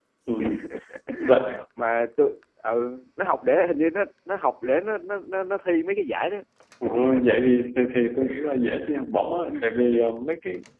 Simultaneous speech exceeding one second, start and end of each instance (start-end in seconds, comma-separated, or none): none